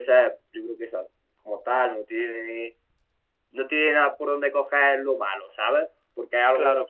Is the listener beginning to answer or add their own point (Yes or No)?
No